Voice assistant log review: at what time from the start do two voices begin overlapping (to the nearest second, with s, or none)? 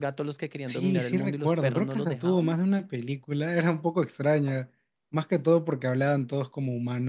1 s